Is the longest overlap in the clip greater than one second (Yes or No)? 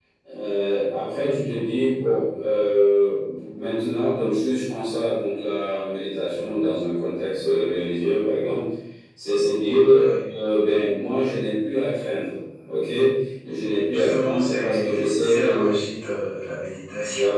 Yes